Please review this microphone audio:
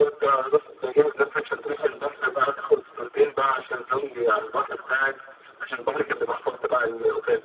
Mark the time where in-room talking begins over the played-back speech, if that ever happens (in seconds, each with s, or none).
none